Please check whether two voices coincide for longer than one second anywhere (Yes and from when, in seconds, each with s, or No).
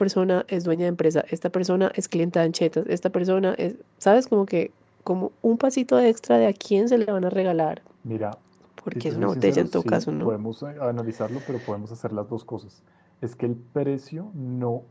Yes, from 9.0 s